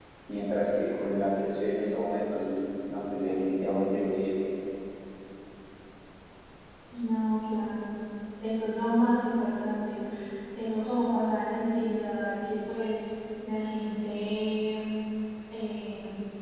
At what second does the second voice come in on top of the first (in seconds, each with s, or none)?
none